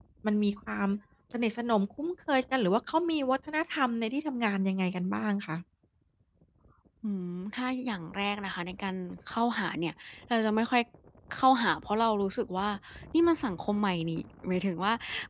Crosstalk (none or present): none